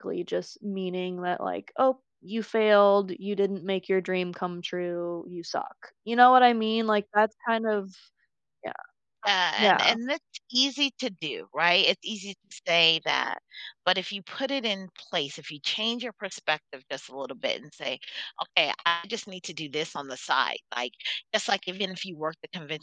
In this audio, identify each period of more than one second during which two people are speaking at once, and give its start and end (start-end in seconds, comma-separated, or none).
none